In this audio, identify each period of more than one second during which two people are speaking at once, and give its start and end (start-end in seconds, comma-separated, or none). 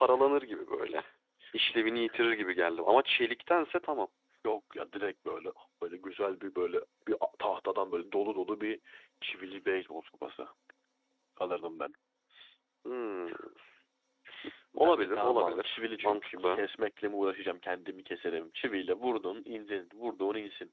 14.8-16.6